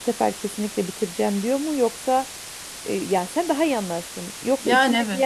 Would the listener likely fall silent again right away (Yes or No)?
Yes